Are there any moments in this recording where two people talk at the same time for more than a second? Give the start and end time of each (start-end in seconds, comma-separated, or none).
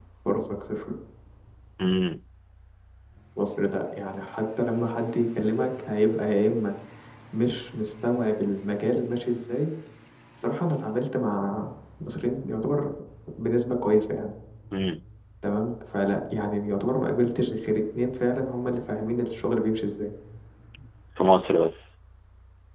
none